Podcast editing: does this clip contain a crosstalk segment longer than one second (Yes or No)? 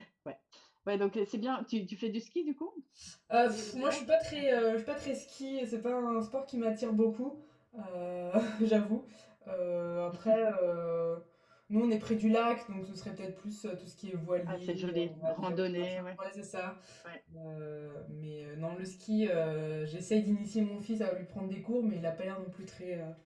Yes